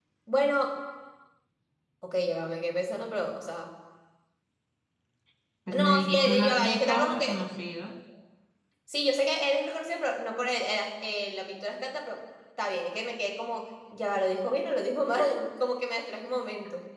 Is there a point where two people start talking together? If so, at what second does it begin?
6 s

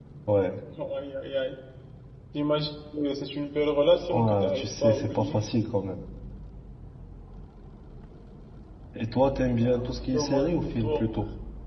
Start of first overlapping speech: 4 s

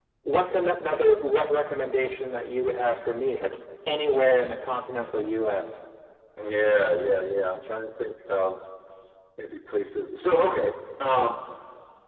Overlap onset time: none

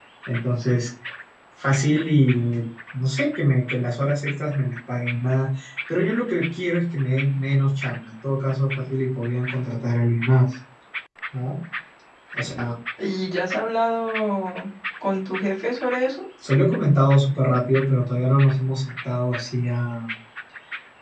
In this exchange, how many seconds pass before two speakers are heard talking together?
none

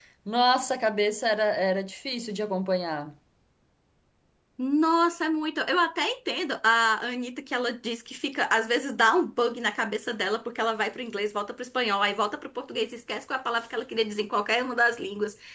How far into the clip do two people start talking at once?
none

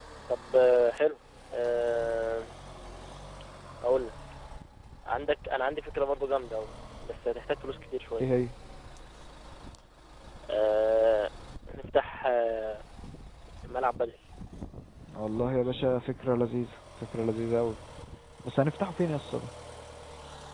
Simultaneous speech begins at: none

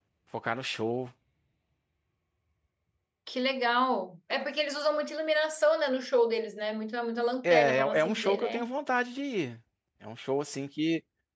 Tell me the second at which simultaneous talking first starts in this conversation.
7 s

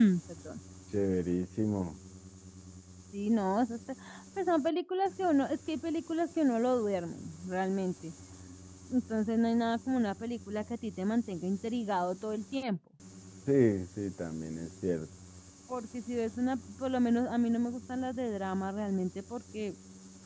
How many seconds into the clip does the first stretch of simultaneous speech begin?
none

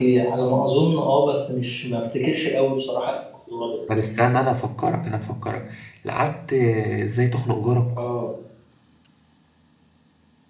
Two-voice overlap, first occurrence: none

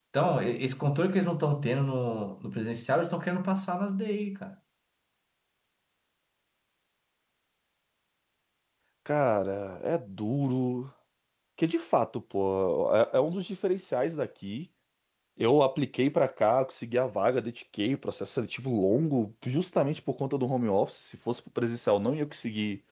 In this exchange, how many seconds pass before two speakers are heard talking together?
none

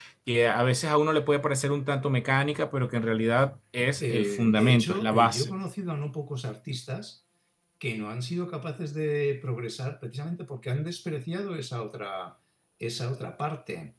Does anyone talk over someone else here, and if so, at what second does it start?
4 s

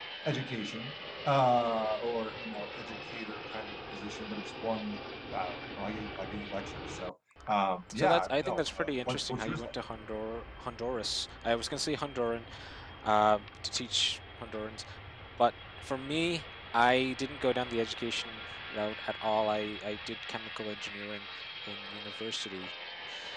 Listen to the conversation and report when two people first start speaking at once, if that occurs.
8 s

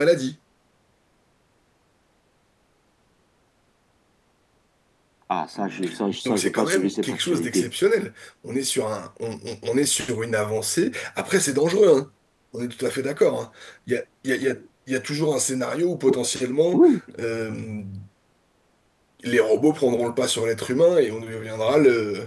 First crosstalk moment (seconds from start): 6 s

